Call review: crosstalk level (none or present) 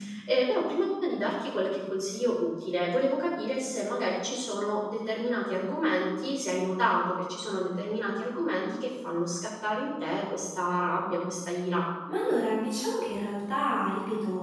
none